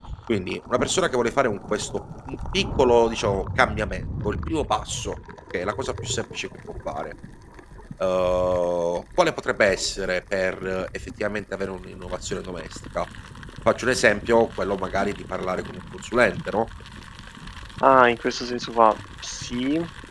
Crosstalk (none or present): none